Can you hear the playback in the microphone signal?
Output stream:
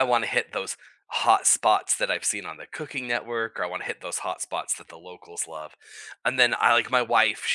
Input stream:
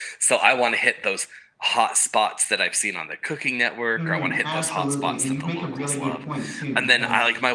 Yes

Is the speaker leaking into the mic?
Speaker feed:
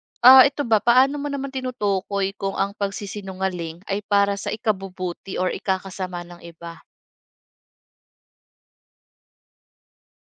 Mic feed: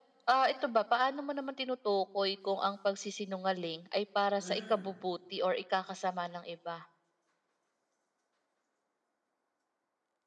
Yes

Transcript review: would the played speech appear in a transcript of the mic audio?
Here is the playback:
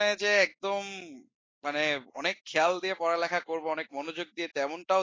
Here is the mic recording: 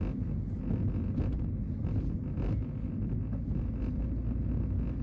No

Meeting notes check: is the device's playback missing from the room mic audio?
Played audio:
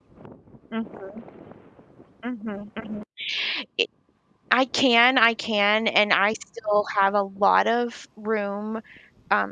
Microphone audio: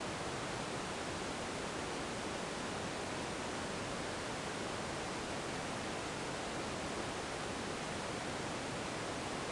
Yes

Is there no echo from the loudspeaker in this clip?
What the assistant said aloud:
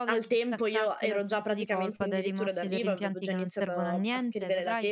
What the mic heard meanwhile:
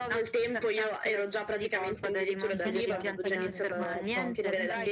No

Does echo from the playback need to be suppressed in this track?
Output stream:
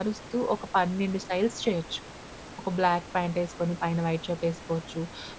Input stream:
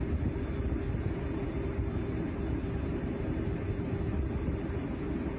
No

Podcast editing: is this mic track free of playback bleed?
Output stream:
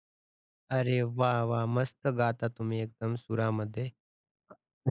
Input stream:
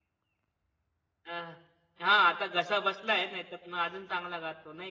Yes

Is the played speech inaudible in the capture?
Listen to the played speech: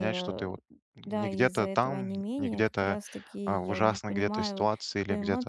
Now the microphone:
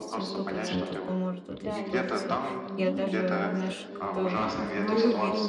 No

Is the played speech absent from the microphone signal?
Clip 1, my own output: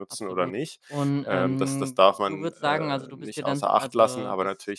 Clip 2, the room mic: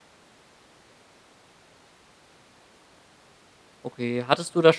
Yes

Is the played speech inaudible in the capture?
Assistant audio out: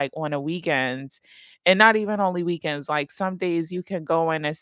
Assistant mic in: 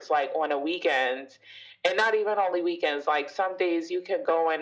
No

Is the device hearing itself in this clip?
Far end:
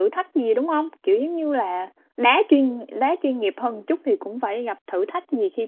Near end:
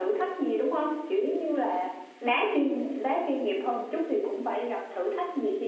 Yes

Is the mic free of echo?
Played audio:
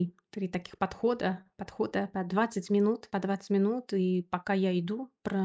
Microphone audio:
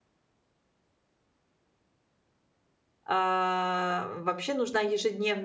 Yes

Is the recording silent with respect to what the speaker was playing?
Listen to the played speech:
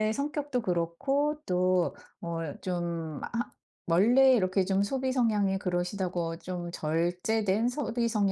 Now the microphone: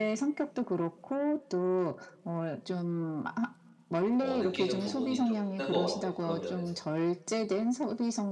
No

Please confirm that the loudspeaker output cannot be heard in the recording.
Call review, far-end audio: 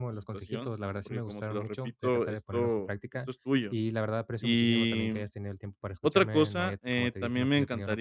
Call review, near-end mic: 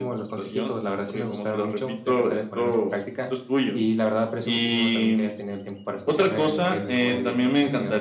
No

